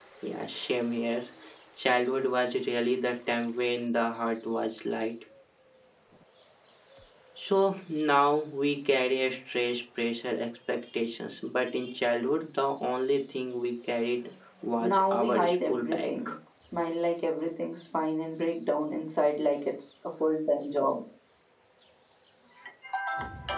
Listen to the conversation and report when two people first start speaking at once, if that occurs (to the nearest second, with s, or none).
15 s